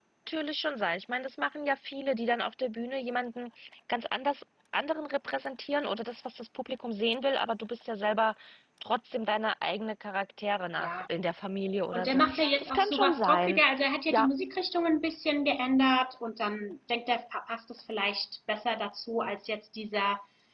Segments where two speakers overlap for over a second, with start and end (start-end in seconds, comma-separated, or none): 11.9-13.6